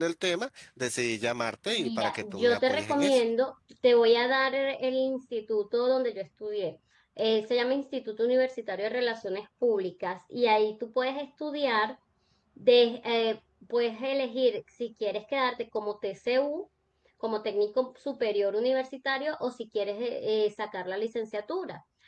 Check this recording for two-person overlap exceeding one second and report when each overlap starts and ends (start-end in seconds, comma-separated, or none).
1.7-3.2